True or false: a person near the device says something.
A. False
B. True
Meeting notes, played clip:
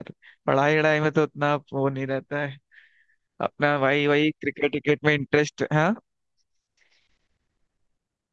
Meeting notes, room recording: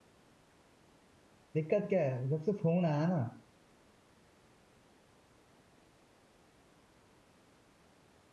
B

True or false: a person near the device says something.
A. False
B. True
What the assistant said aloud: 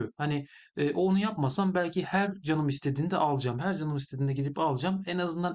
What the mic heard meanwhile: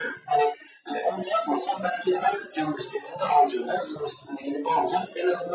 A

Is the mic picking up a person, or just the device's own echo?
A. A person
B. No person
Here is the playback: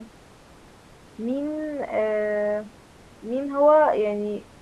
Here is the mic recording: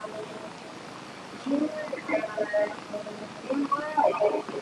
B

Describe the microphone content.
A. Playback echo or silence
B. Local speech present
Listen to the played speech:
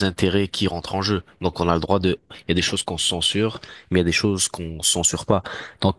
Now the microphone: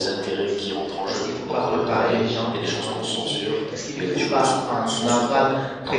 B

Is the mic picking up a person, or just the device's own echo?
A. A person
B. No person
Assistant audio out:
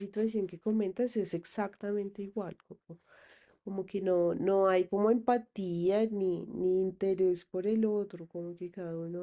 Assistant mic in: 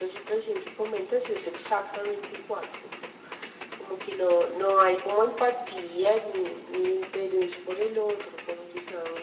B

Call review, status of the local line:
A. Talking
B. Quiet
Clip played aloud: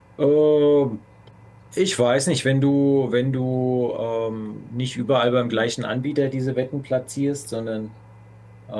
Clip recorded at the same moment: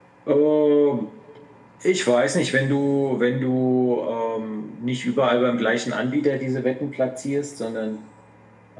B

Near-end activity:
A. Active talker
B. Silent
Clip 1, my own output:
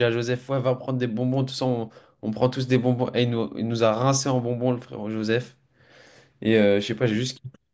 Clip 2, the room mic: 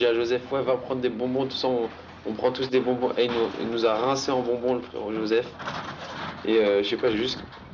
B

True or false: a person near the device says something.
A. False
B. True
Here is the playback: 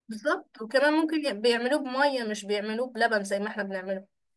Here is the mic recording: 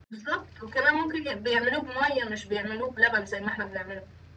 A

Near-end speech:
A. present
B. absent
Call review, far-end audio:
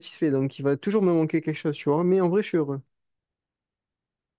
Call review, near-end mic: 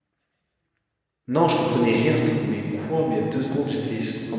A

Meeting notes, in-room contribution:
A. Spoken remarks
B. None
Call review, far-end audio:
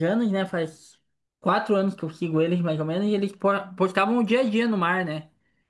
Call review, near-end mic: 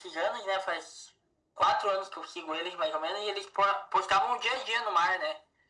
B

